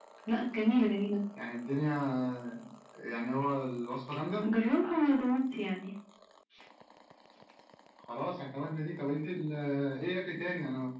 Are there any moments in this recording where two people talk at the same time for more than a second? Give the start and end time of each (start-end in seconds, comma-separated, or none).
none